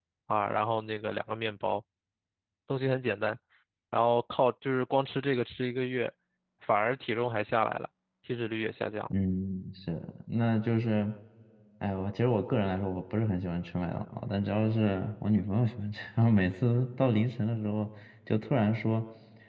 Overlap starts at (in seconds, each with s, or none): none